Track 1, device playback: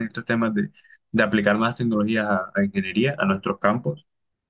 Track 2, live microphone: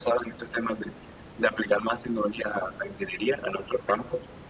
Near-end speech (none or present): none